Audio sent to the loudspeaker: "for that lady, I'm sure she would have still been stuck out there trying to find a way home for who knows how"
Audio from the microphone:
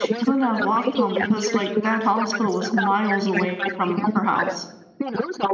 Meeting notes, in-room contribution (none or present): present